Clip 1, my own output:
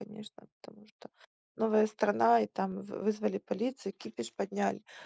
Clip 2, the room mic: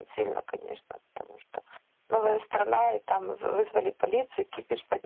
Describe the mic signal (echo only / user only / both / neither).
echo only